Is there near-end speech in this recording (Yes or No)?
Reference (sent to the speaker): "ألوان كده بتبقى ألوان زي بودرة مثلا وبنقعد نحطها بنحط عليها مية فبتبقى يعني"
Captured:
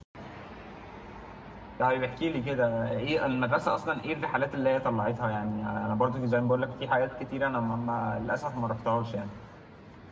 Yes